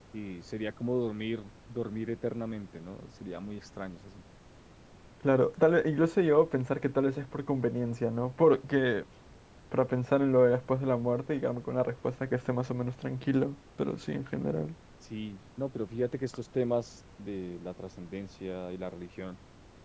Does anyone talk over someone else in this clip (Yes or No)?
No